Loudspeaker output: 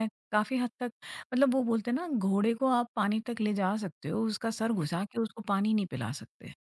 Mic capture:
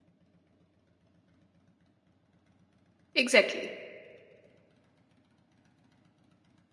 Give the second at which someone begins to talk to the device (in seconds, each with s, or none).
3.2 s